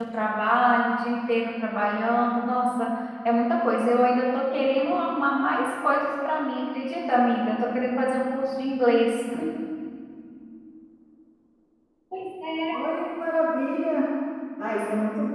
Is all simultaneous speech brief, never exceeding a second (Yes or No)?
Yes